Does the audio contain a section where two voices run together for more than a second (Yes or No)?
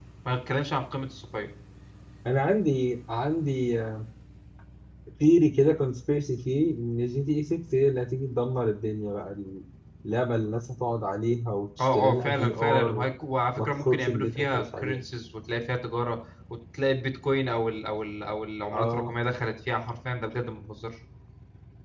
Yes